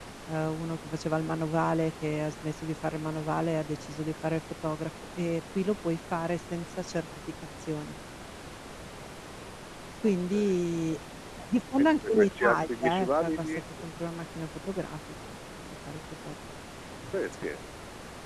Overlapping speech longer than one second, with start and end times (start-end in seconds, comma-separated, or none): 11.8-13.6